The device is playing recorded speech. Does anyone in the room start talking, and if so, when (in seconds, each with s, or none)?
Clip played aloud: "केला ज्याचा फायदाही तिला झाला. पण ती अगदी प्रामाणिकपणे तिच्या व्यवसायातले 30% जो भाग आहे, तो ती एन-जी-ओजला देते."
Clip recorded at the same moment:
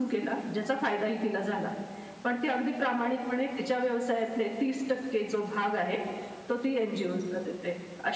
none